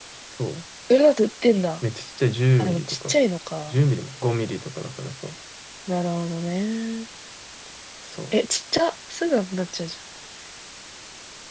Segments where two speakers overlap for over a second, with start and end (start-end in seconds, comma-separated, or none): none